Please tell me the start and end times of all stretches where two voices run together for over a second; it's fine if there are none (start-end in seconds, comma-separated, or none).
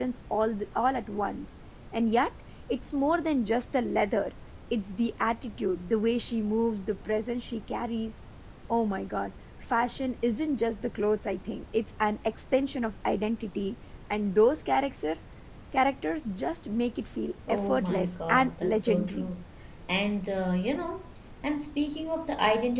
17.5-19.3